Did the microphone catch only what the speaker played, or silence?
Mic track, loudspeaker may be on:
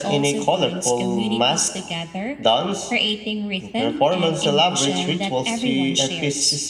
Yes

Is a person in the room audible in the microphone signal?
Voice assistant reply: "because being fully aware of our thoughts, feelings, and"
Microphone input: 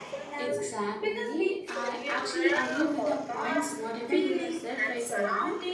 Yes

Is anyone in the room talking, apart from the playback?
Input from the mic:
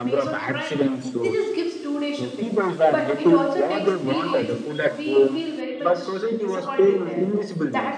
Yes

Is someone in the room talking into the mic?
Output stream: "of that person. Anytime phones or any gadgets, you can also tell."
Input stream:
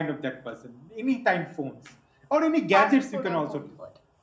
Yes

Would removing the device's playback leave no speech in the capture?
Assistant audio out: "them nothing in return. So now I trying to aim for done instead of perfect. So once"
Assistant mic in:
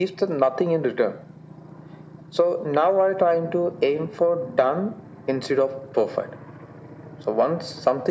Yes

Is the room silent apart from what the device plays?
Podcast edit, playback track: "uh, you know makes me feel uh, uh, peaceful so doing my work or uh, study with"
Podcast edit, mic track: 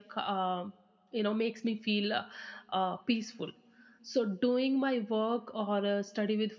Yes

